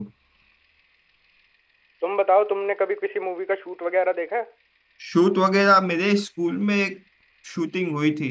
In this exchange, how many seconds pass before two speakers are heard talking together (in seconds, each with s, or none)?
none